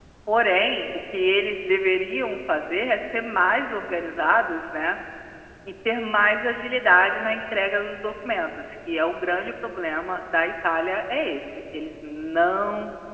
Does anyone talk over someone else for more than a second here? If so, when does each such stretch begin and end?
none

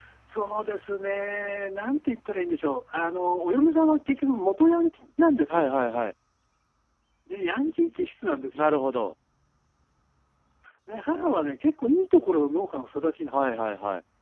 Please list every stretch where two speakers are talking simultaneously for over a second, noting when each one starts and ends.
none

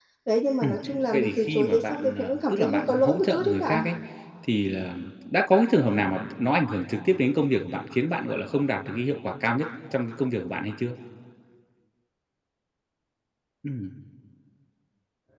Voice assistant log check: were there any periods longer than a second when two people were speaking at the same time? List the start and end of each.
1.1-3.9

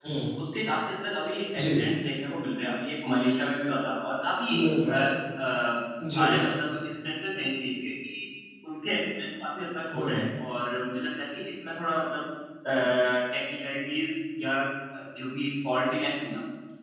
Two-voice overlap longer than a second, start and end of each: none

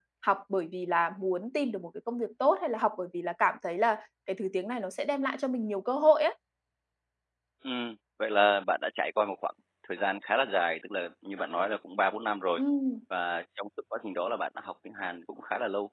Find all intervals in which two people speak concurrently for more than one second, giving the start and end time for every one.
none

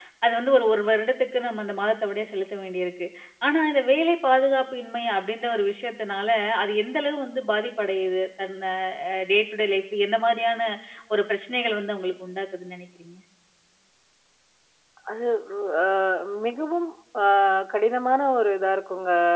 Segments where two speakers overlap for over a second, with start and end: none

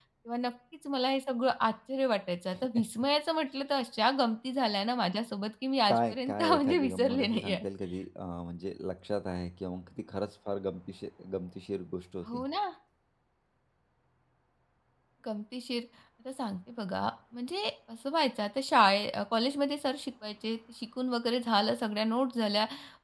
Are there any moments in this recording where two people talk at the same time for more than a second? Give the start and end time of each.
5.9-7.7

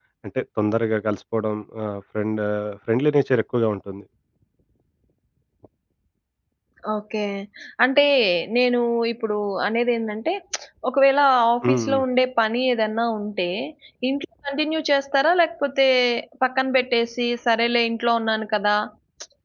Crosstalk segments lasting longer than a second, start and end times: none

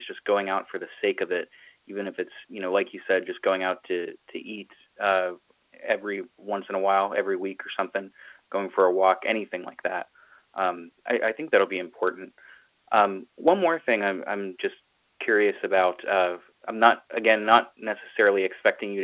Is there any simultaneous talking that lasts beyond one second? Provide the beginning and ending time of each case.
none

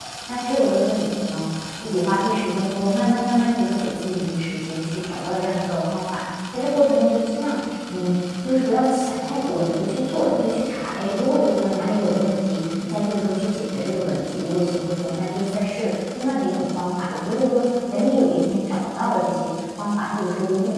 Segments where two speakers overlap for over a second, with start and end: none

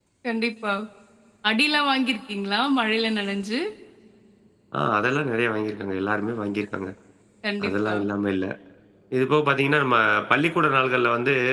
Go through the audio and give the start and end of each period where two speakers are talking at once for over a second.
none

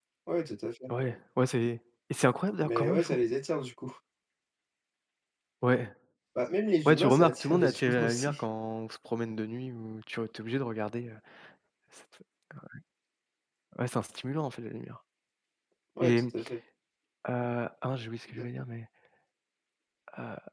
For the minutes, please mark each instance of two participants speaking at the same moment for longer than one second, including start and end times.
6.8-8.4

